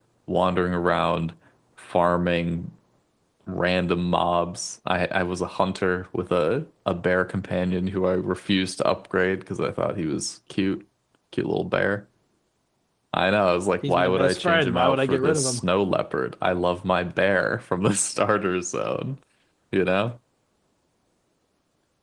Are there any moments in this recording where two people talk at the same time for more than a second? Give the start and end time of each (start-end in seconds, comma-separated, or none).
13.9-15.6